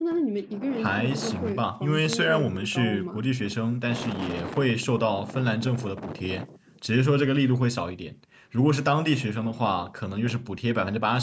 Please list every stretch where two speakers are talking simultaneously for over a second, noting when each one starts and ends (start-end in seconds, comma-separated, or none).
0.8-3.2